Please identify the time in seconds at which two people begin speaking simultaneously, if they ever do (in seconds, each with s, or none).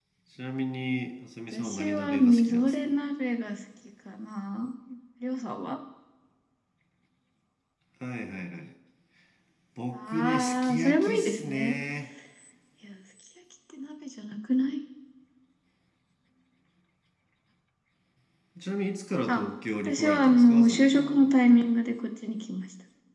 1.5 s